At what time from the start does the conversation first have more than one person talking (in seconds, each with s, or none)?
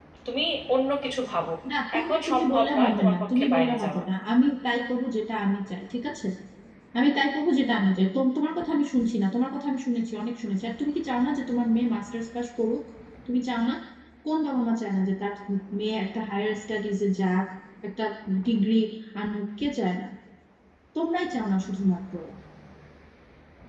2.0 s